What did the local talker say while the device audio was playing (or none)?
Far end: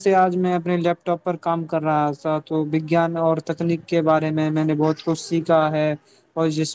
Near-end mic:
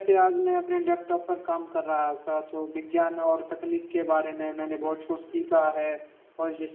none